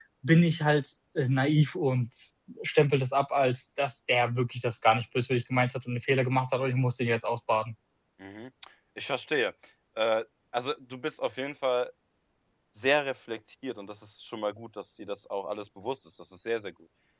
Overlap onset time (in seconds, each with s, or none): none